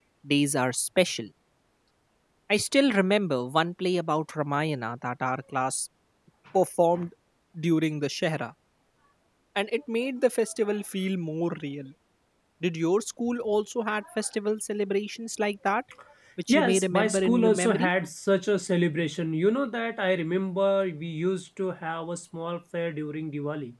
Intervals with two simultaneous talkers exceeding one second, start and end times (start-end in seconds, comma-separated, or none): 16.5-17.9